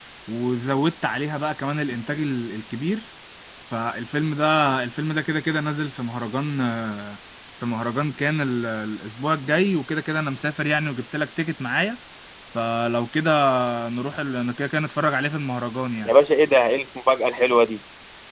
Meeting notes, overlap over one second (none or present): none